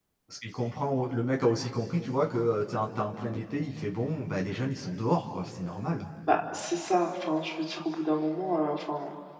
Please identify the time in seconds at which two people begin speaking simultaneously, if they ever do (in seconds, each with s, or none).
none